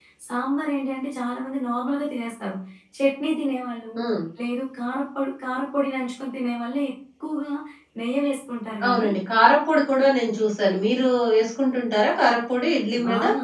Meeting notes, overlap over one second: none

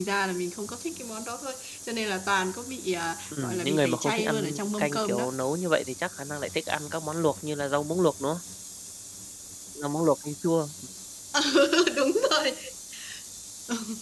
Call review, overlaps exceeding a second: present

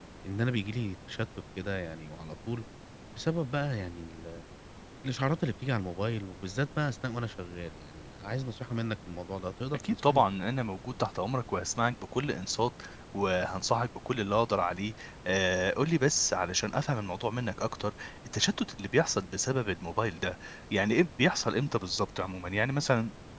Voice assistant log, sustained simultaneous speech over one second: none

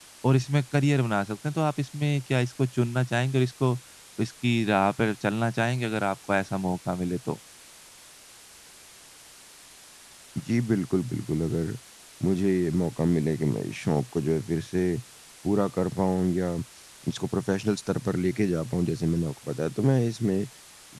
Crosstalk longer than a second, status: none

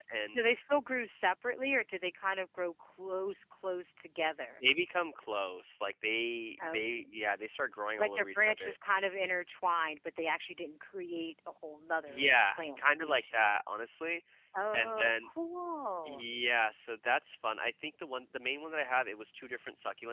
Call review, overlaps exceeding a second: present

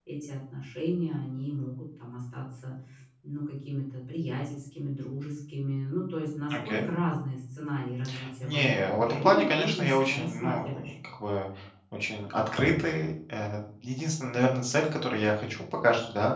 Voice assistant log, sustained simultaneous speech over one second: present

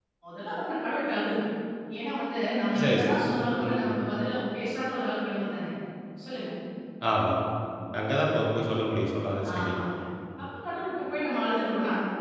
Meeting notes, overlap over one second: none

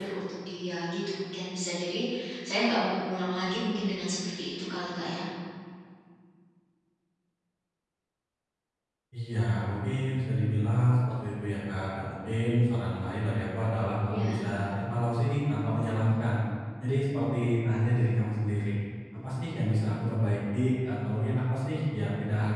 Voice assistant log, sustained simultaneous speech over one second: none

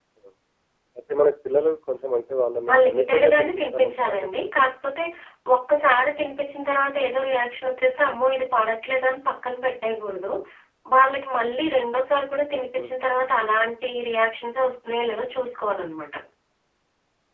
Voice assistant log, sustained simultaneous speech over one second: present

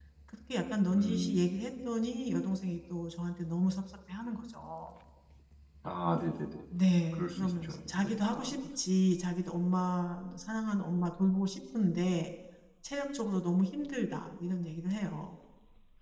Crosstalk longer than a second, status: present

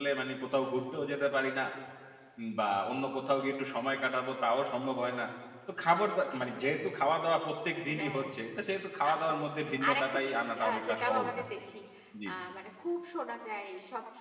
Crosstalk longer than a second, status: present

